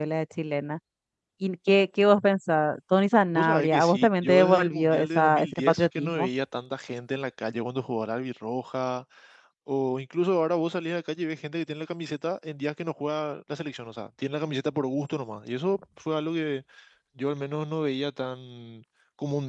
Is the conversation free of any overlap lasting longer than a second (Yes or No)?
No